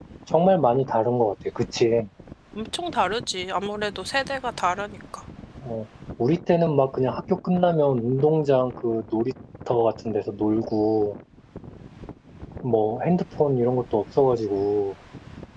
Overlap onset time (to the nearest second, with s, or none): none